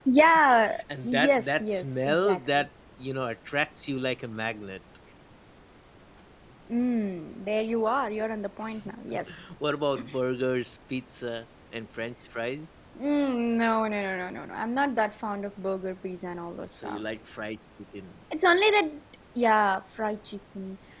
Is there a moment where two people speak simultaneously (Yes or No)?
Yes